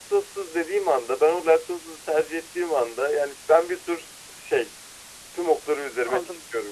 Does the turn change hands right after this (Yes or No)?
Yes